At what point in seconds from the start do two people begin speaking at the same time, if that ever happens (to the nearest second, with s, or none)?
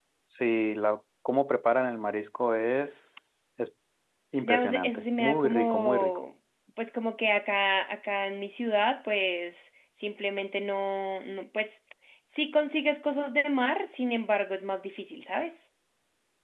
4 s